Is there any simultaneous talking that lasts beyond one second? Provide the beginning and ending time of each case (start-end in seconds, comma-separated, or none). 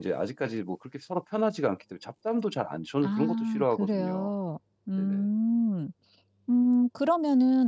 3.0-4.3